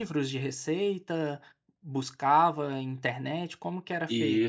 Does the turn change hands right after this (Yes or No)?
Yes